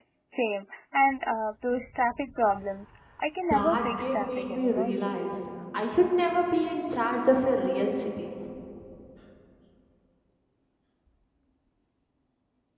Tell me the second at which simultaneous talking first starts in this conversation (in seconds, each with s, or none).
3.5 s